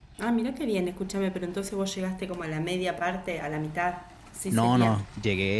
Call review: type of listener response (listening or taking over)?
taking over